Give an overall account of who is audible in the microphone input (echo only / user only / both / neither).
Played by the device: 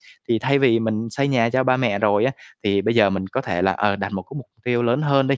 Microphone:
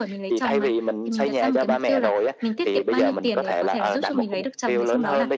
both